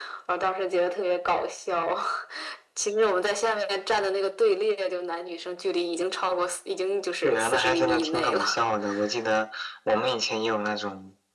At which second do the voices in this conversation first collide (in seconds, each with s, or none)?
7.2 s